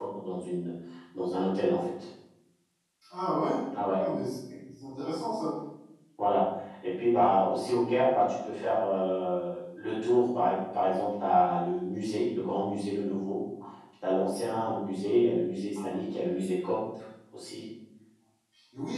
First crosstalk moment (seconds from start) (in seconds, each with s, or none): none